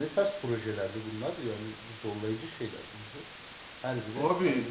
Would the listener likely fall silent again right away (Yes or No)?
No